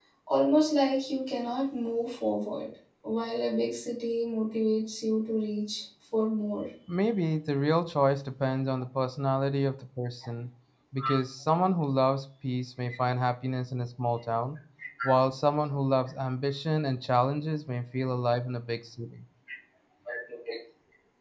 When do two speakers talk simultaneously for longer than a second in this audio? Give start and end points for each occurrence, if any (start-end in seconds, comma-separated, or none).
none